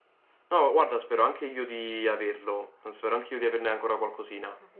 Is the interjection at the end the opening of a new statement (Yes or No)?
Yes